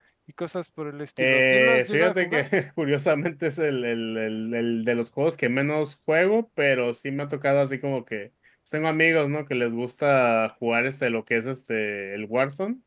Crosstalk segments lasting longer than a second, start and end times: 1.2-2.5

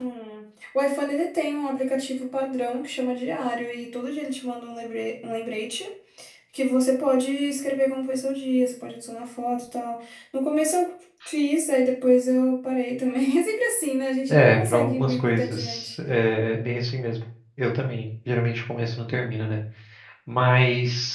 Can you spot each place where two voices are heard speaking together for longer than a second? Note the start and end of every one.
14.3-15.9

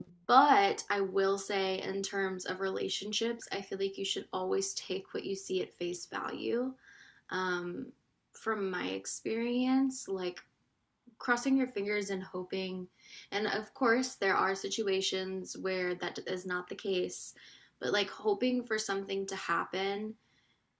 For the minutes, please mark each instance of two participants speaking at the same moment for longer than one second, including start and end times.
none

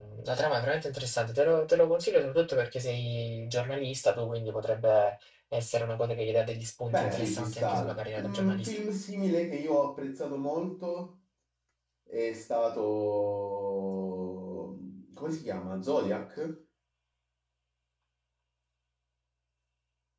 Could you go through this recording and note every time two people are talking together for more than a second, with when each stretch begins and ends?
6.9-8.8

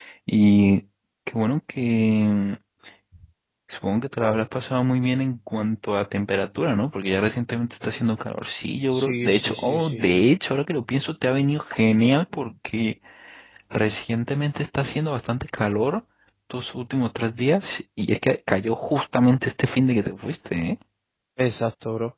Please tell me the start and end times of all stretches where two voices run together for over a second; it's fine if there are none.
9.0-10.2

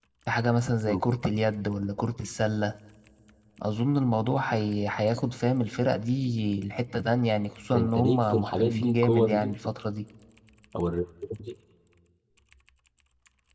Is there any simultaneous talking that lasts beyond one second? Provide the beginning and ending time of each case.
7.7-9.5

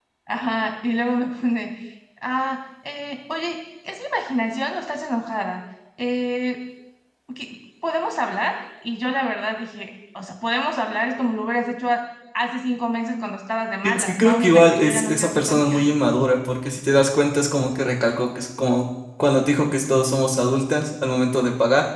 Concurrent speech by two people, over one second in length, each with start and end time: 13.8-15.7

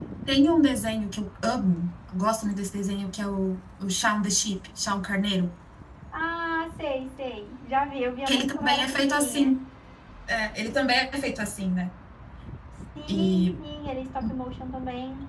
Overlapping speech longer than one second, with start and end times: 8.3-9.5

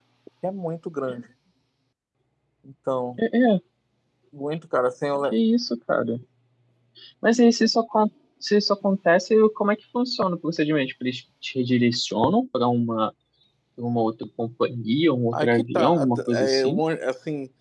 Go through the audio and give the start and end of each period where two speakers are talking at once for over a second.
15.3-16.8

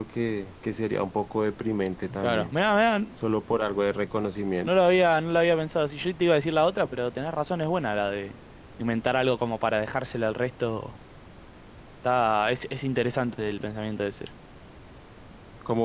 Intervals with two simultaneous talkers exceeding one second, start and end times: none

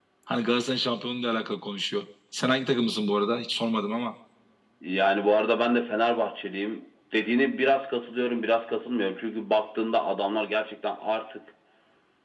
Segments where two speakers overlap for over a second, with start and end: none

